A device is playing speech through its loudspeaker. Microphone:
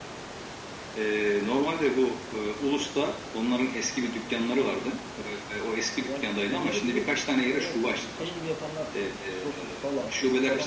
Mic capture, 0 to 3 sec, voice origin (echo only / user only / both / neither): echo only